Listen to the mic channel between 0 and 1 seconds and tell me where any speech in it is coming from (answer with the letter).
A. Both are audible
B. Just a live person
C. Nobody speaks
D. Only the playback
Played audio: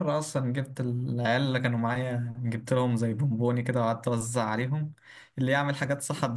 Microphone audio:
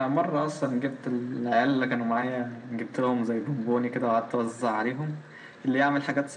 D